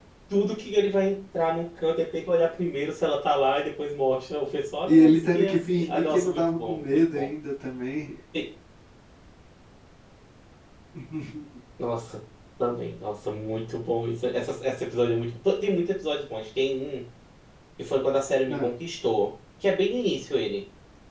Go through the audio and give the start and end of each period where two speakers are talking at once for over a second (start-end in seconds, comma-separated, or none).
4.9-7.3